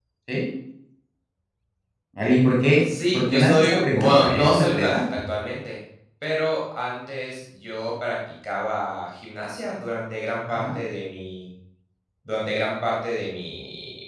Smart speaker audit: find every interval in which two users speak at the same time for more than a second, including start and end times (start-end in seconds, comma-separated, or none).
2.8-5.0